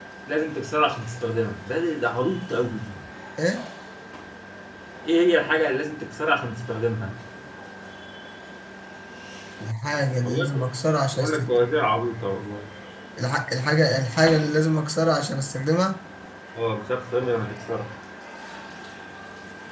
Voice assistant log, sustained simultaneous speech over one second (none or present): none